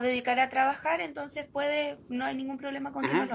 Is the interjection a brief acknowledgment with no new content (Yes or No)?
No